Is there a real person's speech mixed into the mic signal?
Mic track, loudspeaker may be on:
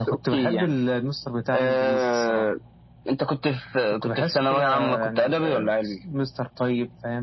No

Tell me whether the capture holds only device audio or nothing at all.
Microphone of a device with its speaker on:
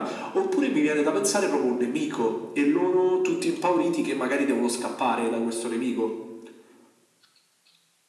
Yes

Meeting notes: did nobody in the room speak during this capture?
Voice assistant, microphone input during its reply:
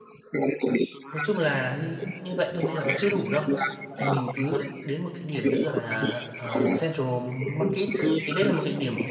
No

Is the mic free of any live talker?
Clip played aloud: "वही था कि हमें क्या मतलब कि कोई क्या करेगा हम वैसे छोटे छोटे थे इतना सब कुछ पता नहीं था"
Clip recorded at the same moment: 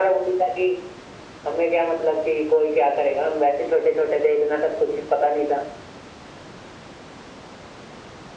Yes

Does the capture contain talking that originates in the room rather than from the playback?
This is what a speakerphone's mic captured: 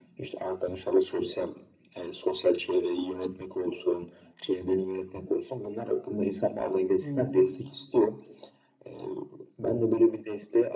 Yes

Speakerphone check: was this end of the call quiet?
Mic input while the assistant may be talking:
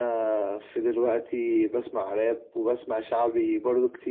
Yes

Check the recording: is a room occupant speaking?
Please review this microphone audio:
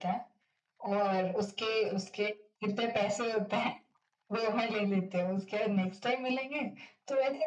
No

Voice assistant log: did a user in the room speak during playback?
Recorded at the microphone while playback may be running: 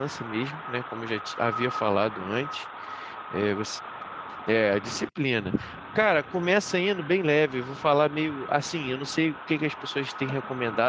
Yes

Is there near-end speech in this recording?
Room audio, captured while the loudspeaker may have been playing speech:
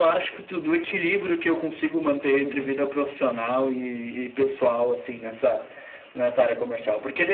Yes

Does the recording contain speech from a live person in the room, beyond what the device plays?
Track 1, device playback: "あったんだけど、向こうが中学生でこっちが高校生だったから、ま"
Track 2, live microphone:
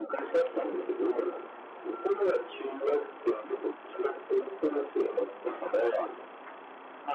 No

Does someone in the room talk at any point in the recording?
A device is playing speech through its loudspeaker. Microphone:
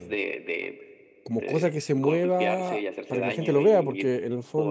Yes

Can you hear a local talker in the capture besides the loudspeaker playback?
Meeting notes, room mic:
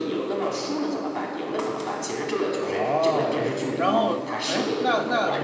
Yes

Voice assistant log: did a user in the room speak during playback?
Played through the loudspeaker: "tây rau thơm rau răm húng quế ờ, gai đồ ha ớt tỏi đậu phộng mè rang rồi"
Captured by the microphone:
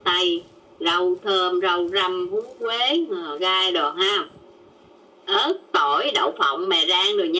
No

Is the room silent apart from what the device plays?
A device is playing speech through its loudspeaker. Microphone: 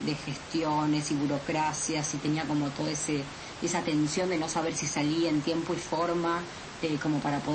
Yes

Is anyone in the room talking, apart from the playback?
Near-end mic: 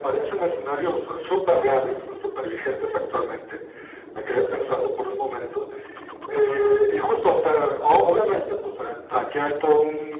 No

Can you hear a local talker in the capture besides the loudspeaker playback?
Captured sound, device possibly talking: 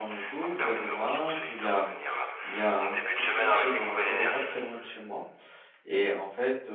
Yes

